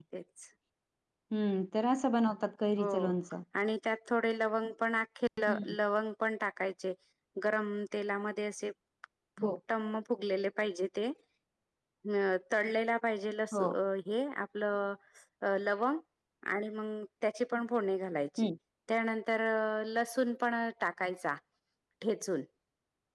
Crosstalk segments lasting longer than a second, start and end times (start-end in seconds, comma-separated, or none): none